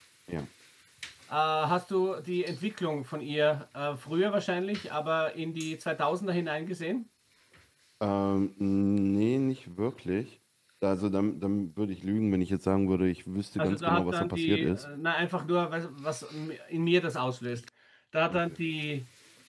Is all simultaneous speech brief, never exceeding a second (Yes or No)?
No